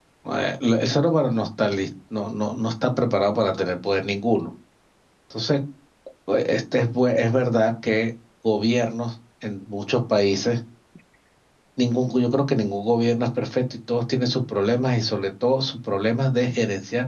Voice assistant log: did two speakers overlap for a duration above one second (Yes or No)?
No